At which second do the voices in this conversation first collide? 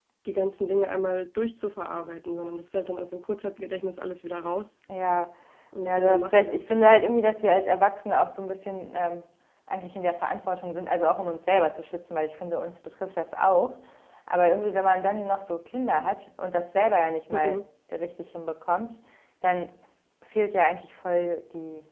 5.8 s

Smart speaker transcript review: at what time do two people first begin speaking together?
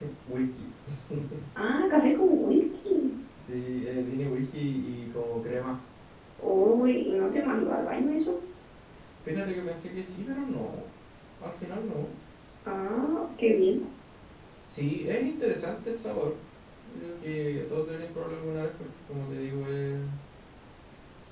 none

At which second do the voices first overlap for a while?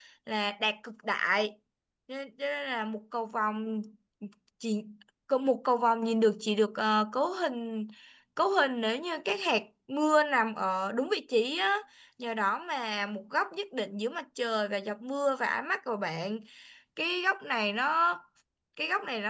none

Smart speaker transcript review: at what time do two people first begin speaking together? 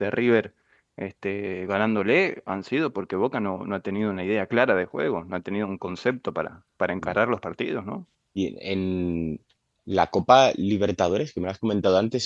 none

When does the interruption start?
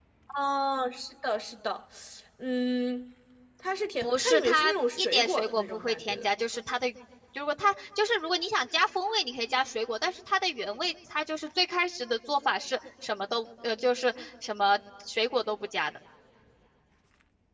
4.0 s

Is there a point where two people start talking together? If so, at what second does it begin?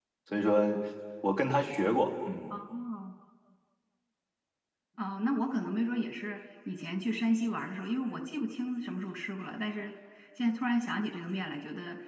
none

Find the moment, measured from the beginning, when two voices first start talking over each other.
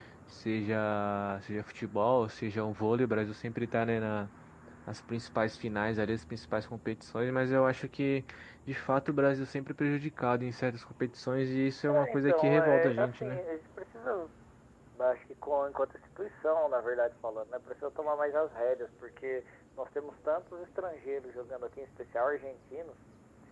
11.9 s

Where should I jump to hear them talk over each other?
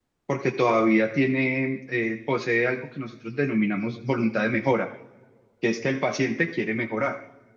none

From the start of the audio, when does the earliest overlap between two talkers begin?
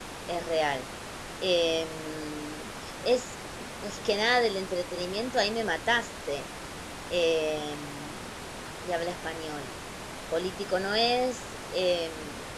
none

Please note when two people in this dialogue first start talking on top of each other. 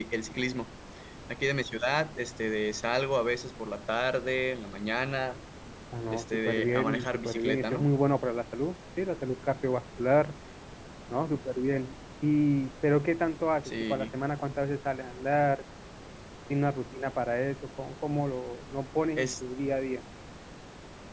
6.1 s

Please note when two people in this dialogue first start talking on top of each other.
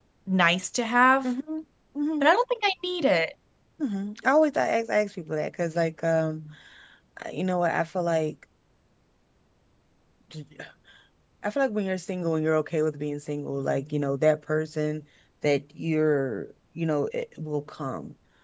none

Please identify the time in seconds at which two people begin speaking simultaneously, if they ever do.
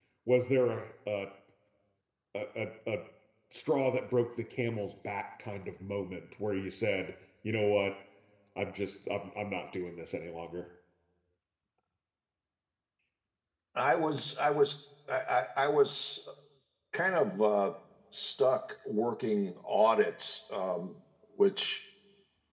none

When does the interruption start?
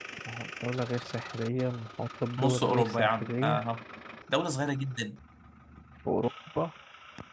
2.4 s

